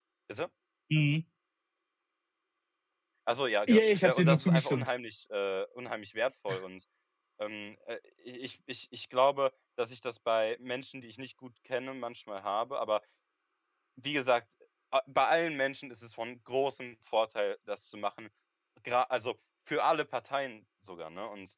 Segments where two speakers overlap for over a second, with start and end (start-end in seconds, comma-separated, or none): 3.7-4.9